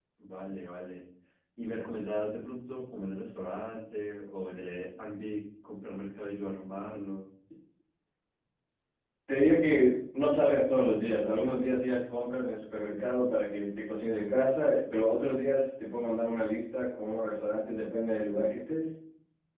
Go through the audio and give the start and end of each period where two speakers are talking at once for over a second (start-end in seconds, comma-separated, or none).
none